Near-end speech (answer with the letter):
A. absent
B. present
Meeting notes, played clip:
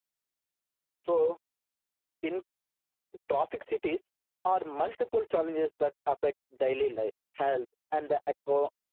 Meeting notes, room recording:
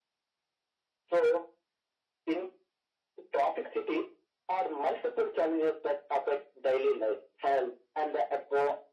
A